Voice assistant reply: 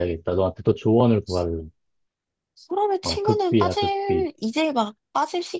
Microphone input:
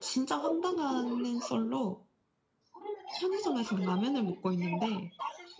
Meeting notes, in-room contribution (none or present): present